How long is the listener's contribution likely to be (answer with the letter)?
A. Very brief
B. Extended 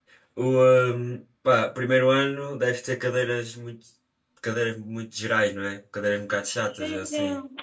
B